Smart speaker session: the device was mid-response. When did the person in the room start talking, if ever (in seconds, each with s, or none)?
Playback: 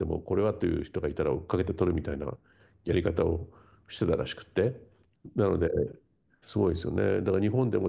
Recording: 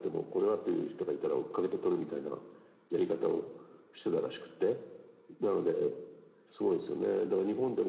none